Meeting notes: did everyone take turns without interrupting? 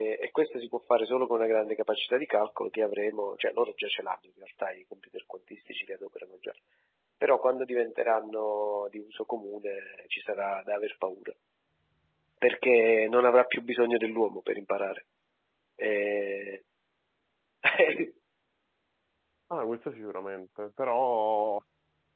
Yes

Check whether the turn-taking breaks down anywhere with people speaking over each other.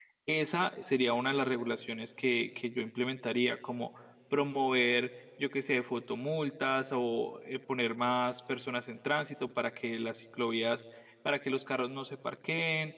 No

